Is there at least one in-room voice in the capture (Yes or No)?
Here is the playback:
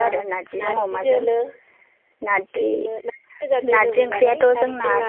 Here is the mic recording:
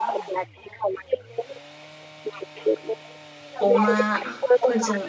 Yes